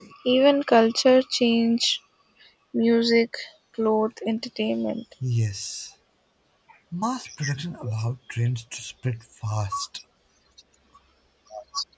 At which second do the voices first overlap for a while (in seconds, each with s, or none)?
none